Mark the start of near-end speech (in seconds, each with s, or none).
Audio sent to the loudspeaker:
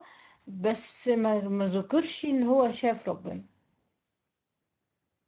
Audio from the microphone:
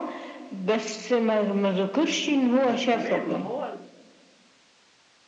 2.6 s